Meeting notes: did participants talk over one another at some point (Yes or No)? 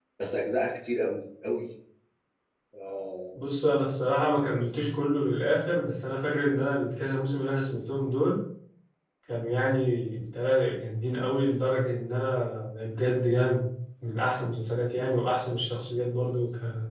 No